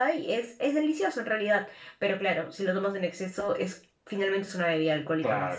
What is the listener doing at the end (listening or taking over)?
taking over